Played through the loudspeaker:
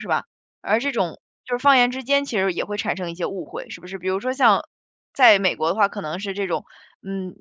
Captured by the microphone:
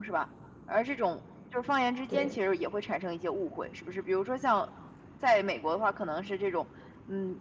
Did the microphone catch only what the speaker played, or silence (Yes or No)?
No